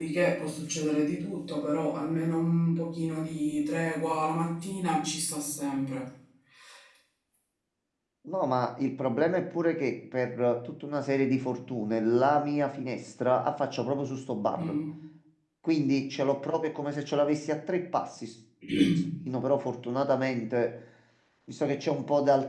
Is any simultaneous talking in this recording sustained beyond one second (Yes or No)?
No